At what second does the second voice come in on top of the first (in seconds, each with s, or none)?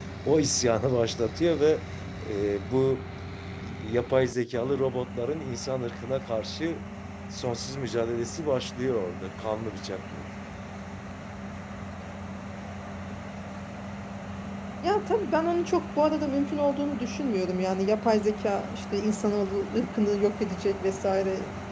none